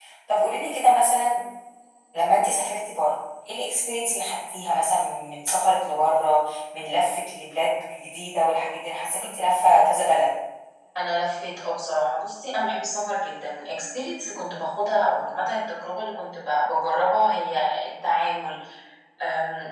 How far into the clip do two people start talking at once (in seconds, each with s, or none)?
none